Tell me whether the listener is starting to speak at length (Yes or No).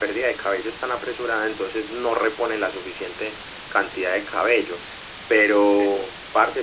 No